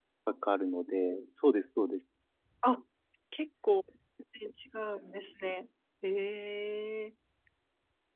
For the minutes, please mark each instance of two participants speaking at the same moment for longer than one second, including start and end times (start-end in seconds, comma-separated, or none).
none